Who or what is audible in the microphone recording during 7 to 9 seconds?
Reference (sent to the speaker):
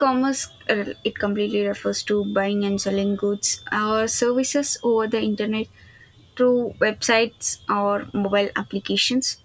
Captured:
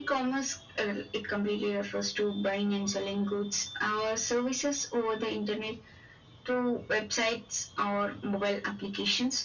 echo only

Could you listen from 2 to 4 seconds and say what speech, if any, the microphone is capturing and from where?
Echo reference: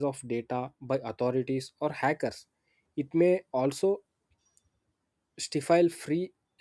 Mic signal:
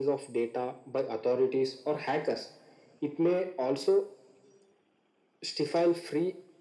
echo only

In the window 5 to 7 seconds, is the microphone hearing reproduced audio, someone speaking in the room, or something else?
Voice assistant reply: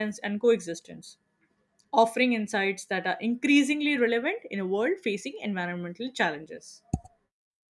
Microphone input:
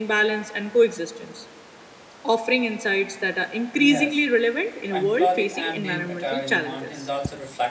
both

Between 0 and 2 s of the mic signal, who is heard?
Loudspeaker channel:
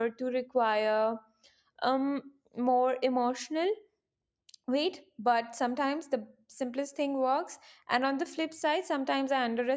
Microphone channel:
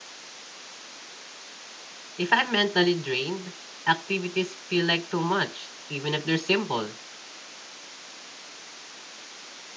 neither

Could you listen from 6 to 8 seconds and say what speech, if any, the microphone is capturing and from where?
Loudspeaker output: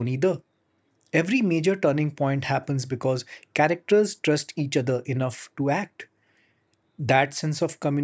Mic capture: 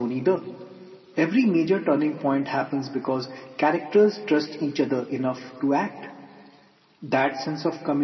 echo only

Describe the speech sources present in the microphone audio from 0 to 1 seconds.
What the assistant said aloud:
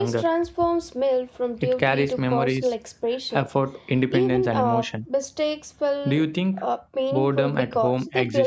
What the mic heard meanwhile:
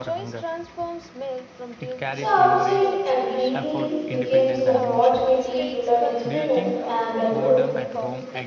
echo only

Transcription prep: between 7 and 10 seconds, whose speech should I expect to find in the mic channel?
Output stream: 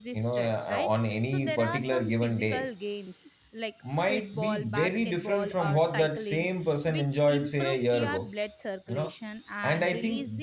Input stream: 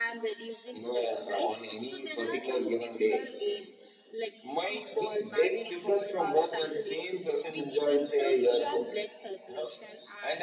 echo only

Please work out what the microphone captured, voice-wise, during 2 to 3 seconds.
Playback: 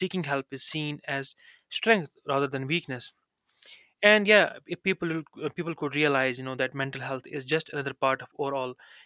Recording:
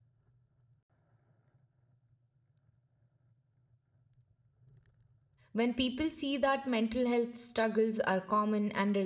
neither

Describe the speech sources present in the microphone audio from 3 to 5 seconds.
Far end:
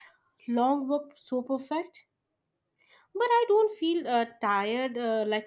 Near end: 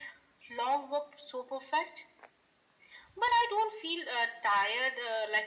echo only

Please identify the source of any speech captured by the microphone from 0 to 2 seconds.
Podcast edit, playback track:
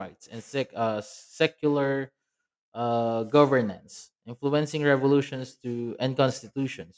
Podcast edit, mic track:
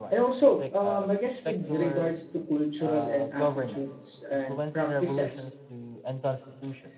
both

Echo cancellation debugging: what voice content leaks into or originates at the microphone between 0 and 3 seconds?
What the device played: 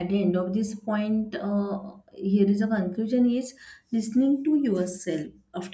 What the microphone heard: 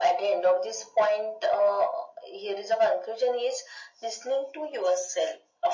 echo only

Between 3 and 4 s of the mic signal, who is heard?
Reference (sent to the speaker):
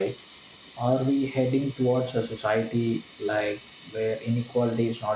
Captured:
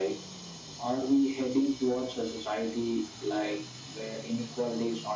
echo only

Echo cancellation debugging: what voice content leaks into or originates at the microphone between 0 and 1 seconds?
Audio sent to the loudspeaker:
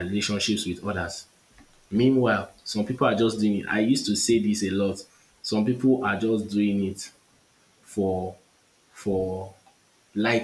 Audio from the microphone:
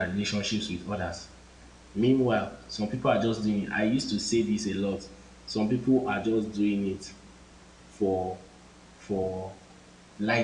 echo only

